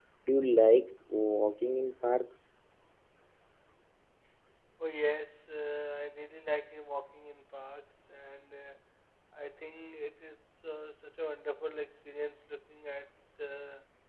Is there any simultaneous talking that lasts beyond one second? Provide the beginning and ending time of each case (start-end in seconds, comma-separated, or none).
none